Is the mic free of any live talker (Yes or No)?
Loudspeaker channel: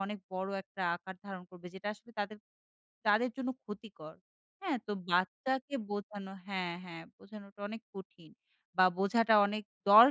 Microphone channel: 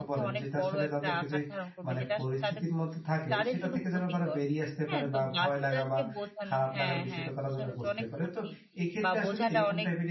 No